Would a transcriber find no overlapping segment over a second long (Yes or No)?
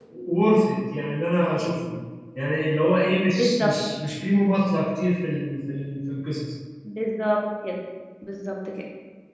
Yes